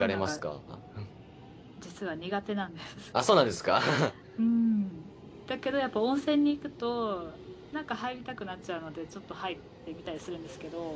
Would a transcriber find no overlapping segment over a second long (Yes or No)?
Yes